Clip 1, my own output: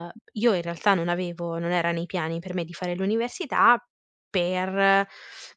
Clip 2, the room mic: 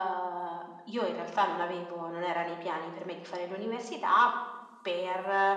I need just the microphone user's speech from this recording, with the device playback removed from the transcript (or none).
none